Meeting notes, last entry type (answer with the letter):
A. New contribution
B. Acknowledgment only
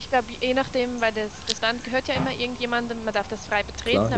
B